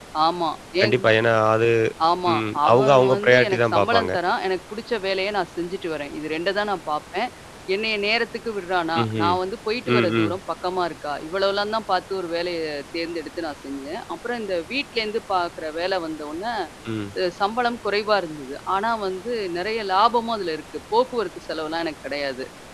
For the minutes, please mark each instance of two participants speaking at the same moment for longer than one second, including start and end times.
2.3-4.1

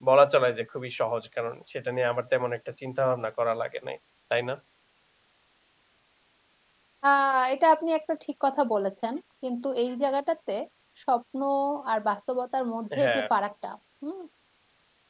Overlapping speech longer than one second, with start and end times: none

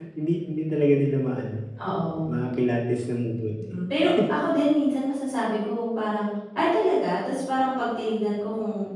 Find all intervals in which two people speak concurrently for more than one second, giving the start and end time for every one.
none

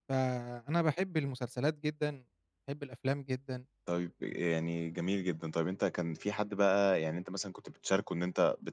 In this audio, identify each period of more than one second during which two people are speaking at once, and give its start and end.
none

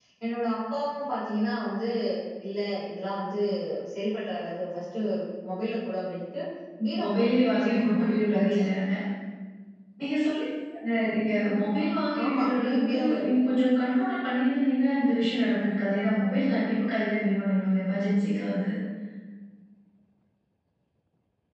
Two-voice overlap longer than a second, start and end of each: 7.0-8.6, 12.2-13.5

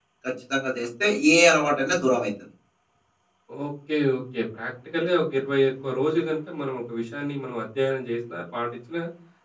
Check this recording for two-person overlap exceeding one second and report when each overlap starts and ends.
none

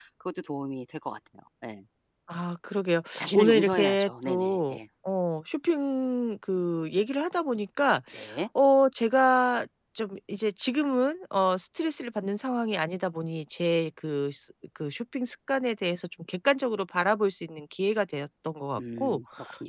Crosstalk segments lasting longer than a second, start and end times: 3.2-4.8

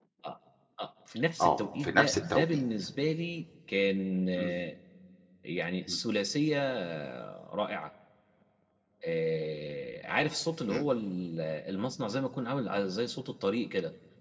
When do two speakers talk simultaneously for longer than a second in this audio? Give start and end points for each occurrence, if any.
1.4-2.6

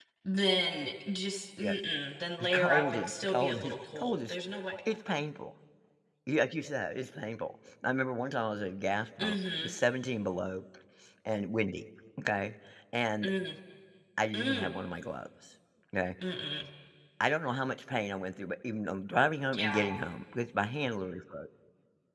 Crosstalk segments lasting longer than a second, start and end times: 2.4-4.3

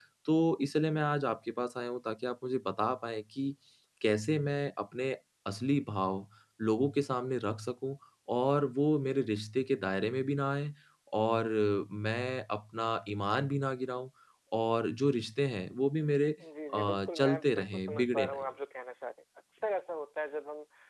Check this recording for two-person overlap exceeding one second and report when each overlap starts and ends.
16.7-18.4

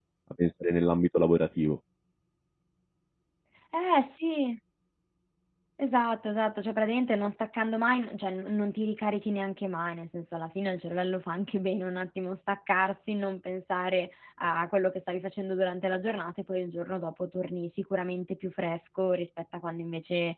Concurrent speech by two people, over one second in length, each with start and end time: none

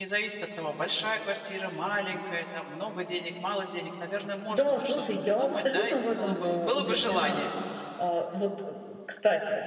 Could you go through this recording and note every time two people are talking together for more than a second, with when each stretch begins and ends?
4.5-7.4

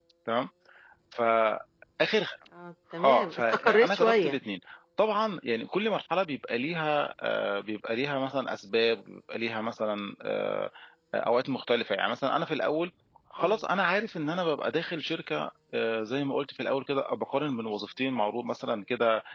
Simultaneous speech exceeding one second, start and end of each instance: 3.0-4.3

